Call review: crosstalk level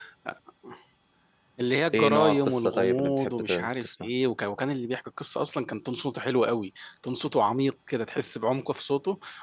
present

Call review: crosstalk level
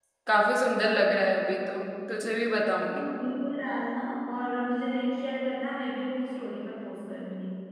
none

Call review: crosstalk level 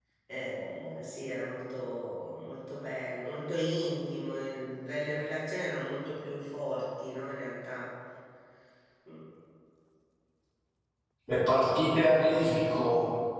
none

